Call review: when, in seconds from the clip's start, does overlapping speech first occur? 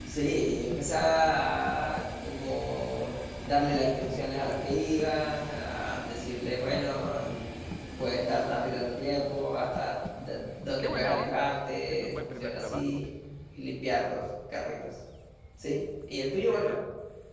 10.8 s

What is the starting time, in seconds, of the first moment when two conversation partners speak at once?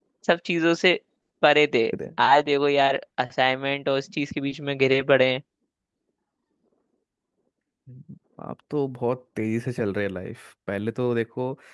none

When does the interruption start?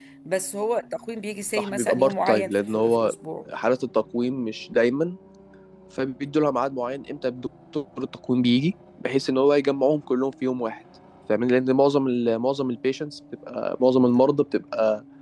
1.6 s

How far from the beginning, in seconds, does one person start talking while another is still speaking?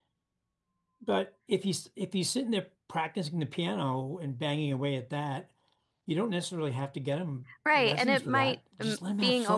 7.7 s

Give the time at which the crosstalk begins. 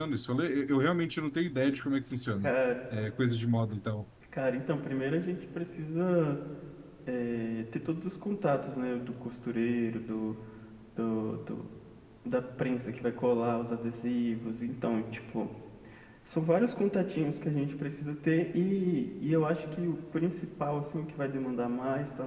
none

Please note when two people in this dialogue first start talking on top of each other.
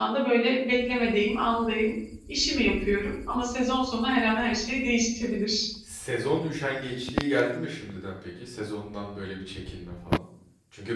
none

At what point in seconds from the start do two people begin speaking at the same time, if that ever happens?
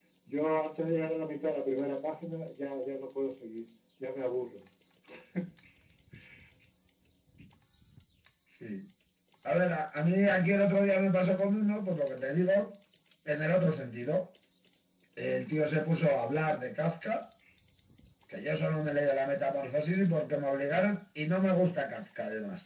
none

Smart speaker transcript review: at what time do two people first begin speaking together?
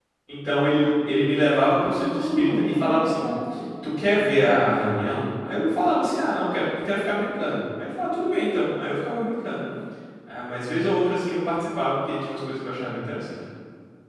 2.0 s

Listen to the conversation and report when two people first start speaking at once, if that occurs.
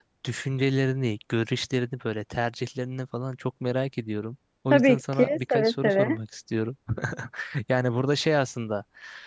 4.7 s

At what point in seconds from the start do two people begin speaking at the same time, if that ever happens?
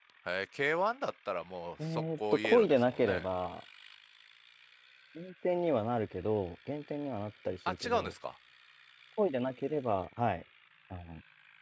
1.8 s

